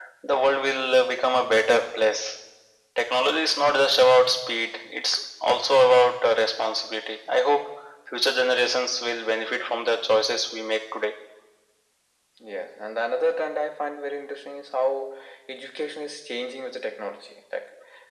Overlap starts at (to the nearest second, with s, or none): none